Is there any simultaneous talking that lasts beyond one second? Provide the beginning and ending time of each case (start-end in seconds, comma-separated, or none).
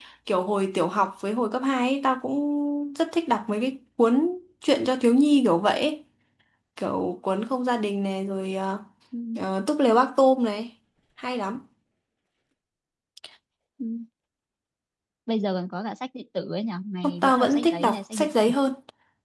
17.0-18.5